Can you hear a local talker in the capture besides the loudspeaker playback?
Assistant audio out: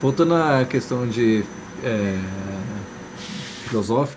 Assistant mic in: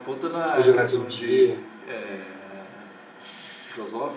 Yes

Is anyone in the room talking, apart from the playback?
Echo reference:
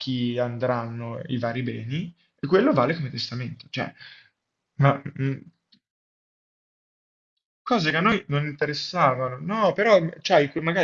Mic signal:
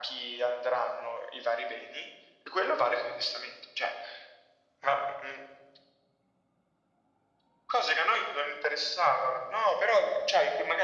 No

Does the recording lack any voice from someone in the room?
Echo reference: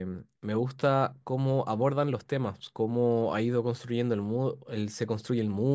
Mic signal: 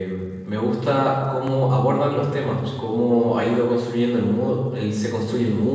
Yes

